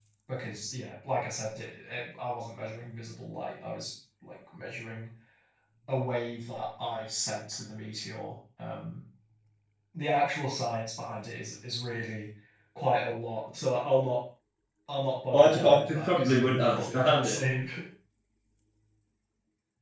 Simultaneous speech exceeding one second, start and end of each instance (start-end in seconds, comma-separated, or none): 15.3-17.4